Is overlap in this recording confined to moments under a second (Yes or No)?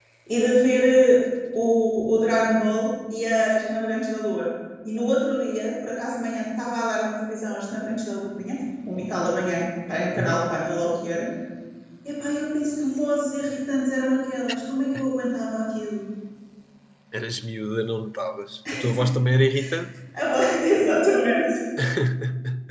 Yes